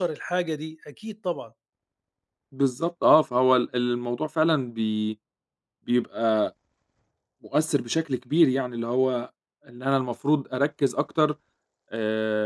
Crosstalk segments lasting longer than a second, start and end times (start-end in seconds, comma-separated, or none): none